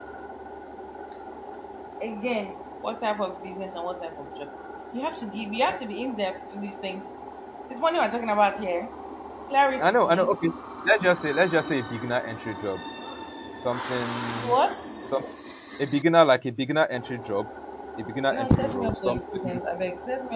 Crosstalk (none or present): present